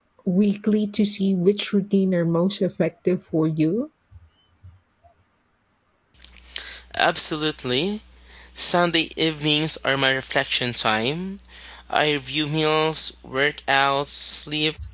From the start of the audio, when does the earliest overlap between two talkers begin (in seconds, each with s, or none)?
none